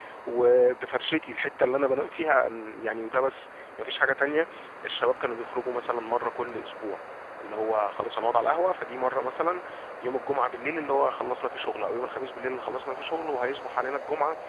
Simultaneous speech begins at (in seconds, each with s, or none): none